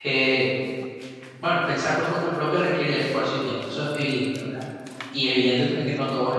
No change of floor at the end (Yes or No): Yes